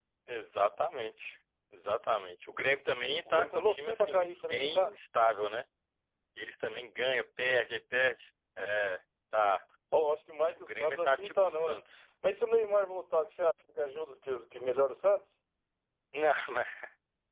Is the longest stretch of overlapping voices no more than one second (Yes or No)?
No